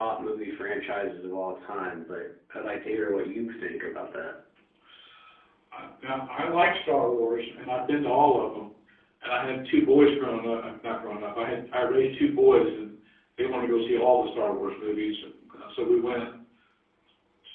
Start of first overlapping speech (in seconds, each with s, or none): none